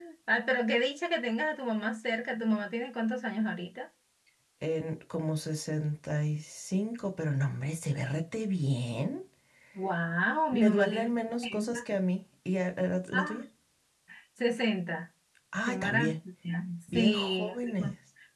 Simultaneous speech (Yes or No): Yes